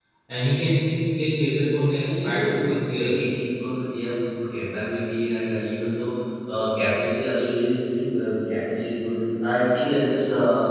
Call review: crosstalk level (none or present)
present